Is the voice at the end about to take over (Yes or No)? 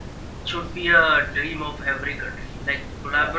No